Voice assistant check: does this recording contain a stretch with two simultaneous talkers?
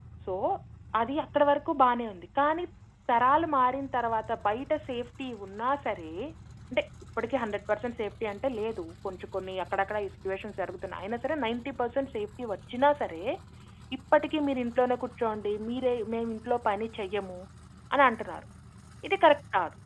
No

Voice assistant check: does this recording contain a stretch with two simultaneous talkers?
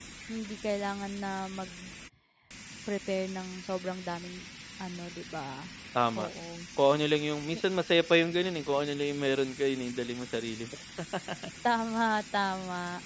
No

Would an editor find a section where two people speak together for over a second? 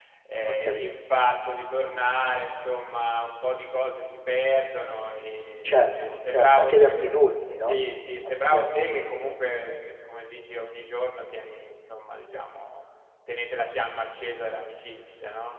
Yes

